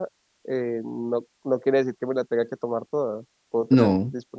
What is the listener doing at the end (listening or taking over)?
listening